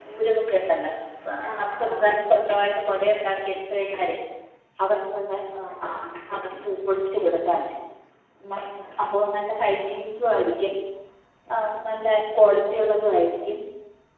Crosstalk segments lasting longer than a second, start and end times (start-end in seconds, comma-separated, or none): 1.5-3.3